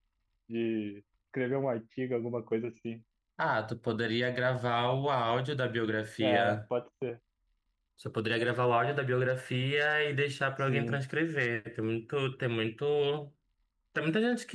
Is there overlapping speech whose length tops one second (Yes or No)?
No